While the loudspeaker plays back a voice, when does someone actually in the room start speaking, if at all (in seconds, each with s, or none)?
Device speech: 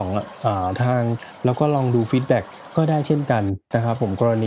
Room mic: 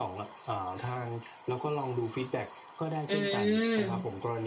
3.1 s